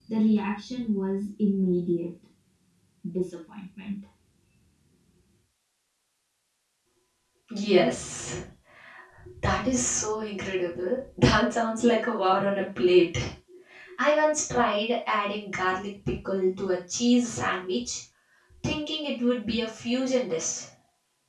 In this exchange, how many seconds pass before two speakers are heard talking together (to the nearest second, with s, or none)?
none